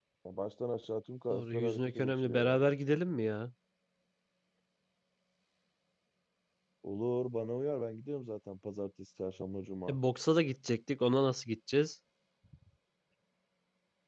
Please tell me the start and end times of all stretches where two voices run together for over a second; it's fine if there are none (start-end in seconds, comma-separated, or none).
1.3-2.7